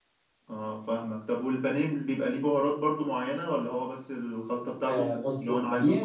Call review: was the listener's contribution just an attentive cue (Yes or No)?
No